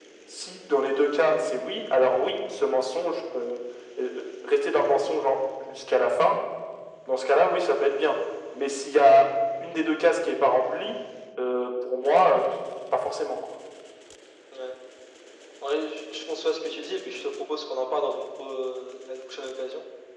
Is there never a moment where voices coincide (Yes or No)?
Yes